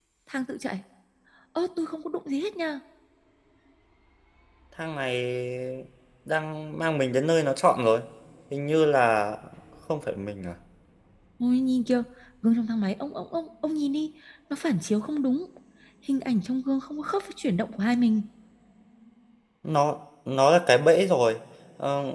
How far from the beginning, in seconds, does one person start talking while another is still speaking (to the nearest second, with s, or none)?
none